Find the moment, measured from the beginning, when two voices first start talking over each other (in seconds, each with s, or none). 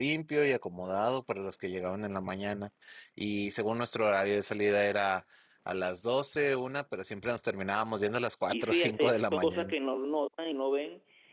8.5 s